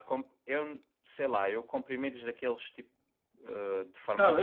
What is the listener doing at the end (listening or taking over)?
taking over